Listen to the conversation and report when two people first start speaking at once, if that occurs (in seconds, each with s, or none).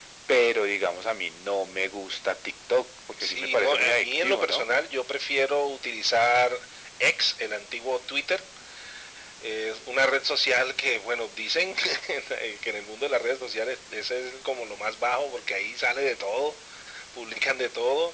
3.1 s